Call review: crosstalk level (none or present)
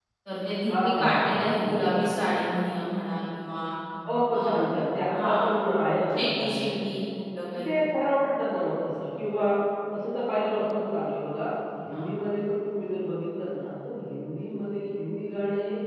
present